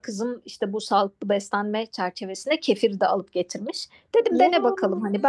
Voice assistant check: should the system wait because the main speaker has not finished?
Yes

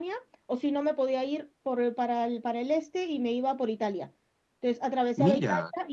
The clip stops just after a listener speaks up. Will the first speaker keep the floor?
Yes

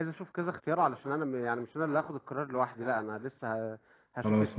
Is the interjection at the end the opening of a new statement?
No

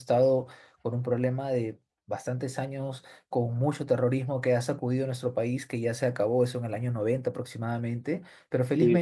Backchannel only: No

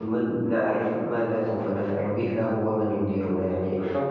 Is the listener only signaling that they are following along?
Yes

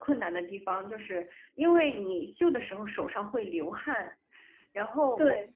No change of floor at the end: Yes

